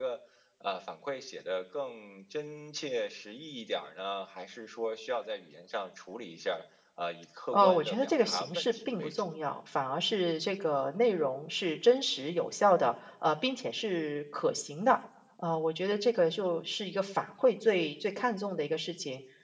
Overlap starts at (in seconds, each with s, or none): 7.5 s